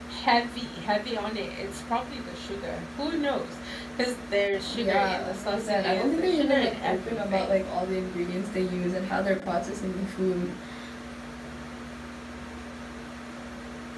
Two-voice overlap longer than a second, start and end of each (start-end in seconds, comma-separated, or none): 4.7-7.5